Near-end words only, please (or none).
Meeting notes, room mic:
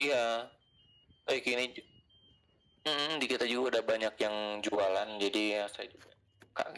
none